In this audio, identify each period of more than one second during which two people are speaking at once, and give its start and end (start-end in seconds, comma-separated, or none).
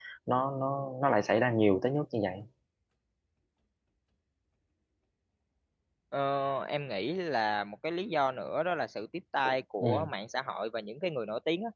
none